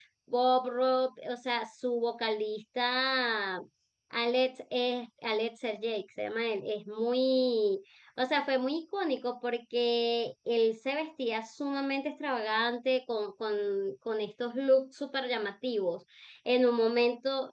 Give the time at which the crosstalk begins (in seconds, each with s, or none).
none